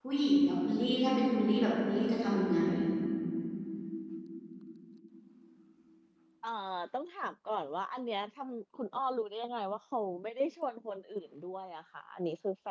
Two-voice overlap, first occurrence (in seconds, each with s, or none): none